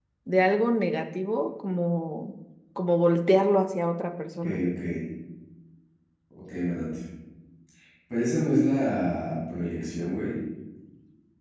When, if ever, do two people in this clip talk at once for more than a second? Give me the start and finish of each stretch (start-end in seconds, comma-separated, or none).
none